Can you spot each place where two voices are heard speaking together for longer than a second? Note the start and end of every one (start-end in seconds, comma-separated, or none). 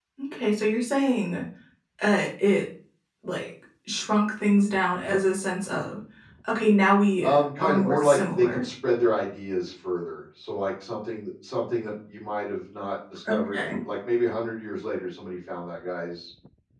7.2-8.6